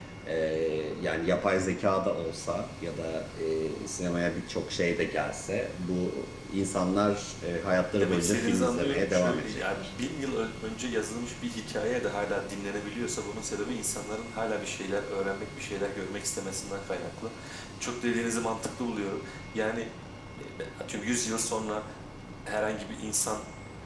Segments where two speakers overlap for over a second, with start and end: 7.9-9.9

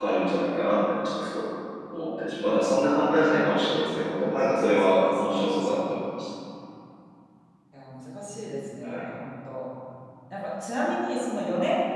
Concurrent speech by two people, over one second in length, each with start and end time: 4.8-6.0

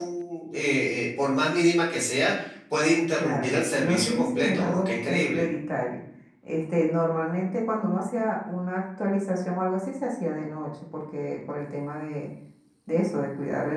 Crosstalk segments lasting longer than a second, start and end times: 3.2-5.5

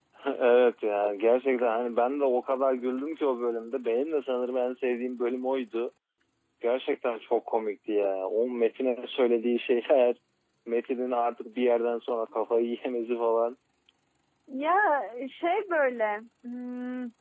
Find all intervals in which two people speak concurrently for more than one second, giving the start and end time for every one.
none

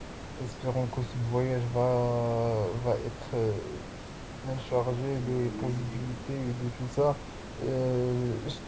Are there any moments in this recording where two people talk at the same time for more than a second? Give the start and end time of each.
5.1-6.4

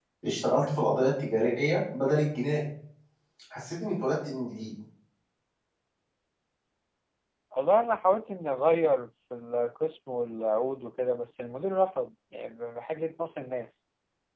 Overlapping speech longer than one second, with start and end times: none

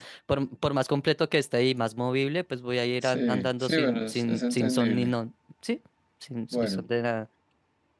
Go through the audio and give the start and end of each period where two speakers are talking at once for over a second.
3.0-5.2

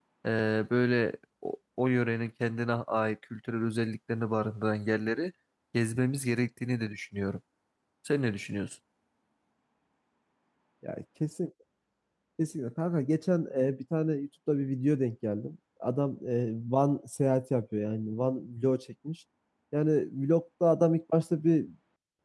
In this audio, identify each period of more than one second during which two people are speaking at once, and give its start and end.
none

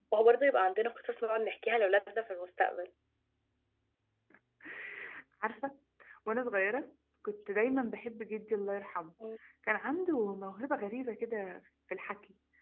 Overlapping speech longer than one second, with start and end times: none

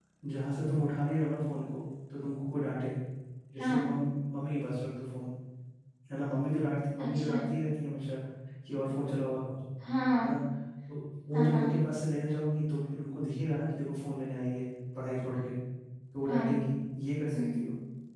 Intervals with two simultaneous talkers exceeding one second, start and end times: none

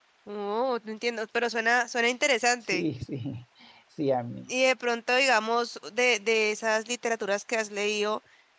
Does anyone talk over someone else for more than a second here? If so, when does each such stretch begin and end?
none

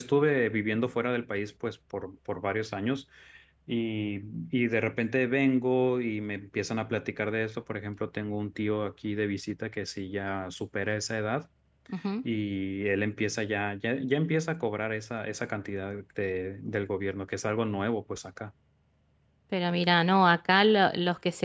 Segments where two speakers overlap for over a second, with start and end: none

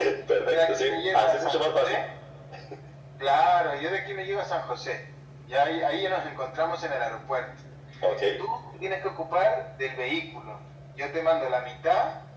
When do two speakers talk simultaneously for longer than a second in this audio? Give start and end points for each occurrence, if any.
0.6-2.0

